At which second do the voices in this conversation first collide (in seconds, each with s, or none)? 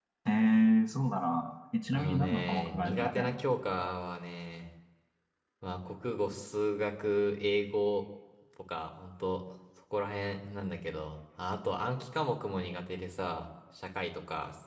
1.8 s